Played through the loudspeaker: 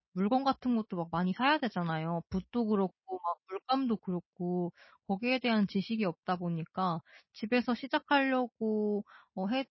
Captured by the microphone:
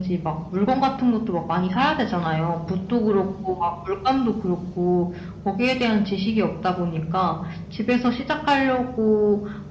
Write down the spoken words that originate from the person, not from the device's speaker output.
none

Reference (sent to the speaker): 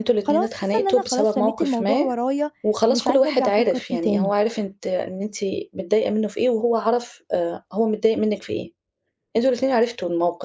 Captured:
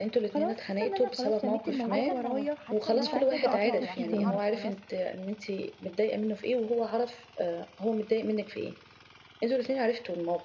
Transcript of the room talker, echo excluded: مش عارفة إن أنا مف حاسة إن أنا محتاجة أقطعه عشان أعرف خلاص

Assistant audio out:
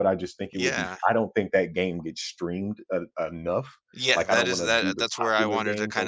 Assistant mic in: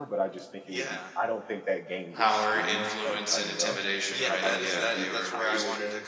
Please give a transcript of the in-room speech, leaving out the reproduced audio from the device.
Power, influence, and intimidation. Right. Yeah. They were very, s-

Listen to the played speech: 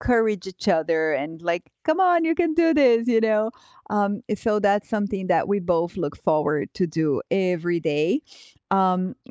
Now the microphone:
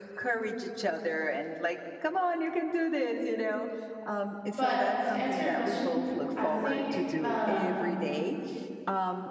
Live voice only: but to answer your question, I think, um

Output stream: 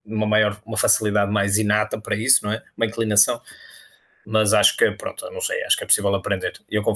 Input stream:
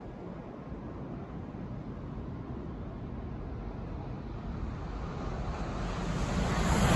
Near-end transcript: none

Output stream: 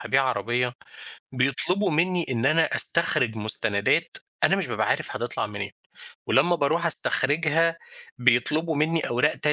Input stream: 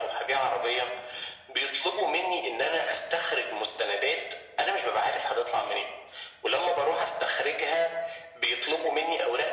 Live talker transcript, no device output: none

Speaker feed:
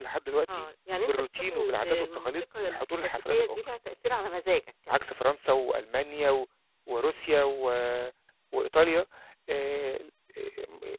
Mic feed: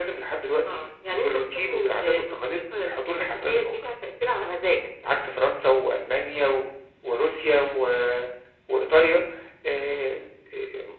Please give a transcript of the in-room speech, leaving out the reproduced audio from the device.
none

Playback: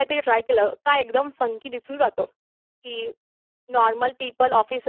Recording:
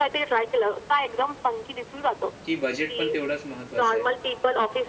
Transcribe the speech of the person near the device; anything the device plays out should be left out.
की बजेट पण तेवढाच महत्त्वाचं आहे?

